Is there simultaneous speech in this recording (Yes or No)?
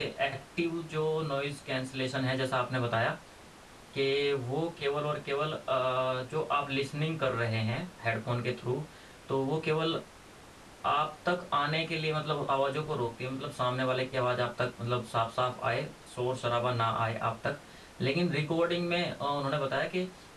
No